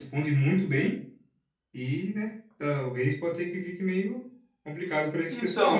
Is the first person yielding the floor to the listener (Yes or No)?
Yes